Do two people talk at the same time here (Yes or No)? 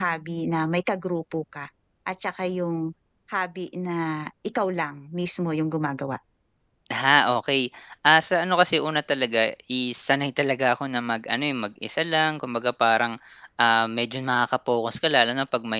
No